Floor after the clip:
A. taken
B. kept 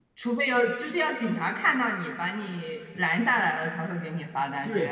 A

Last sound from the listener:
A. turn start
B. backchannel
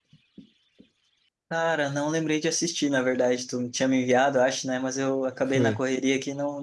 B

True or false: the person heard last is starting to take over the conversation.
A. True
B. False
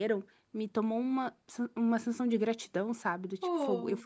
B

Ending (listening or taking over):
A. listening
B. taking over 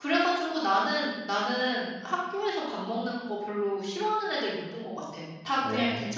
A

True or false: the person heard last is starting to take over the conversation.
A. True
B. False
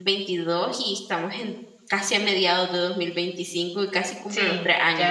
A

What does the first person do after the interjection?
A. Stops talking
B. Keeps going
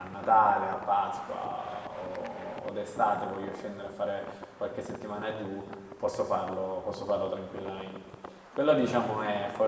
B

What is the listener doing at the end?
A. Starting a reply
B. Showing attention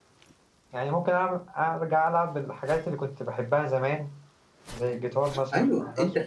A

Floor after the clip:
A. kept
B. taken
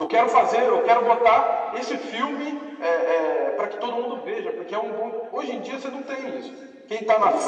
B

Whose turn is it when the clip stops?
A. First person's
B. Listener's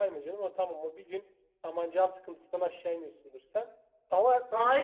B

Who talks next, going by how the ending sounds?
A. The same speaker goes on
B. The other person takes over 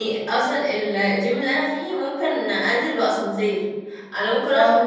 A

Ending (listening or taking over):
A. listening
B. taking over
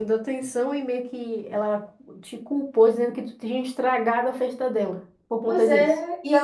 B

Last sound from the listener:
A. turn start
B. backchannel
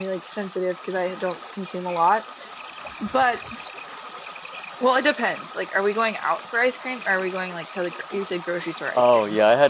A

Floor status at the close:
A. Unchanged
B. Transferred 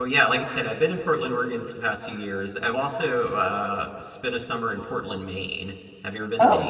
B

